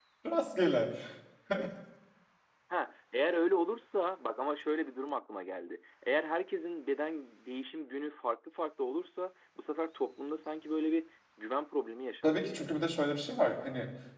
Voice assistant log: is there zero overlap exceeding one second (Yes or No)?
Yes